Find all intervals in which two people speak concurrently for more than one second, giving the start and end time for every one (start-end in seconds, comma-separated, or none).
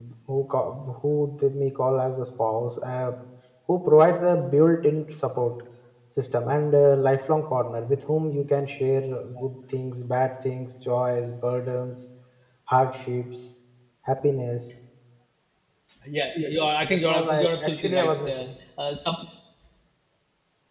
16.8-18.5